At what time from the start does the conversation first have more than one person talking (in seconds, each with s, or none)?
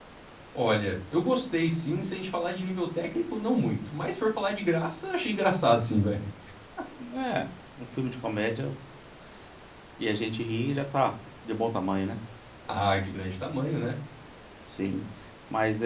none